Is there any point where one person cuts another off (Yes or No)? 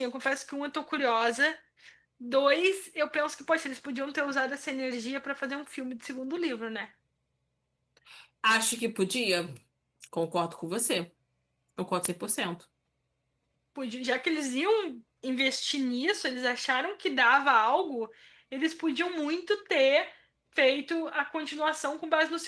No